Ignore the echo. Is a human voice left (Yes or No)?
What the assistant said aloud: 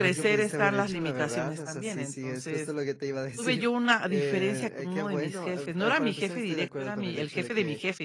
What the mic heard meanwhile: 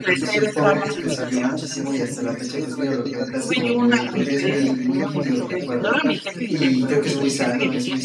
Yes